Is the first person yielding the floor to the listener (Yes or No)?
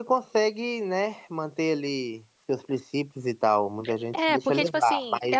Yes